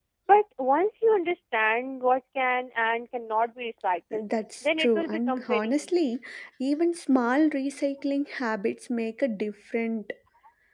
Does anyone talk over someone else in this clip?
Yes, from 4.6 s

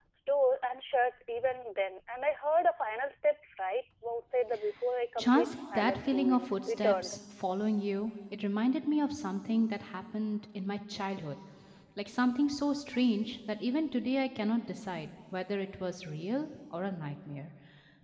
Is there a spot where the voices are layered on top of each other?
Yes, from 5.2 s

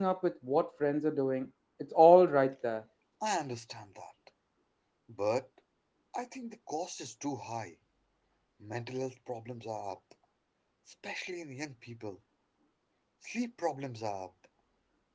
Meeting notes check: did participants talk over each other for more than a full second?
No

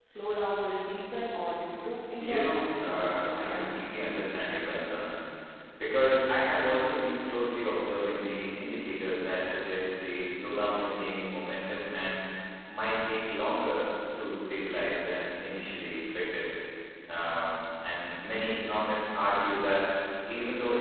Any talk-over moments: Yes, from 2.2 s

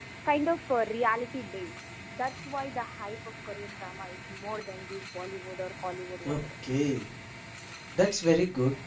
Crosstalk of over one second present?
No

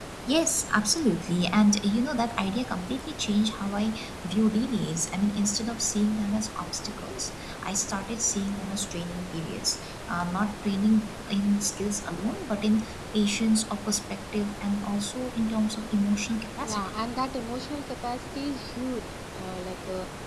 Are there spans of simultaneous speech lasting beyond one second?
No

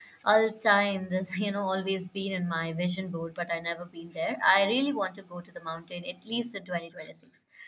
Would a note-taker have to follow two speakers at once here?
No

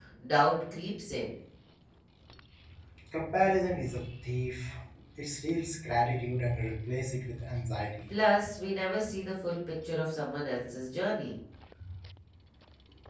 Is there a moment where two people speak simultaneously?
No

